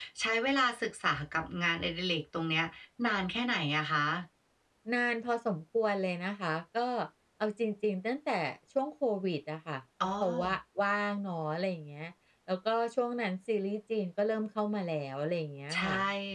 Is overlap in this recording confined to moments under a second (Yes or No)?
Yes